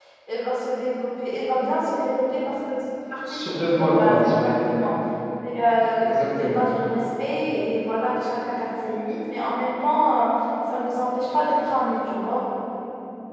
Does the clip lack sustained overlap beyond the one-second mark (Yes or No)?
No